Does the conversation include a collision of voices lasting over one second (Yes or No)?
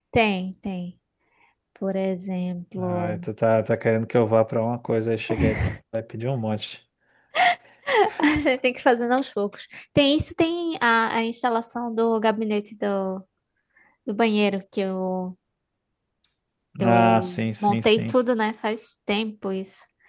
Yes